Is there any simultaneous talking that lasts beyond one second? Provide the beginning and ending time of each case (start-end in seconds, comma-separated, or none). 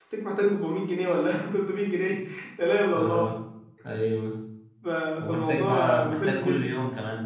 5.3-6.7